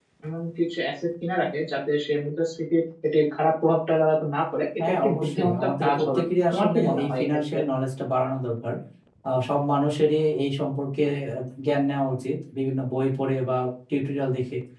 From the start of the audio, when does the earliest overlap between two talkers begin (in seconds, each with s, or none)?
4.8 s